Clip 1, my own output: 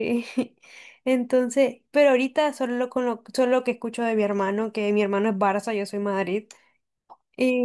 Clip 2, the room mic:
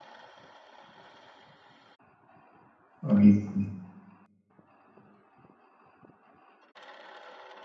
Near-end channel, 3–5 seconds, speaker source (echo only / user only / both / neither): user only